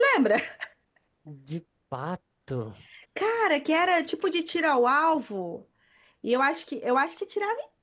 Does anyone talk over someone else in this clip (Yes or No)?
No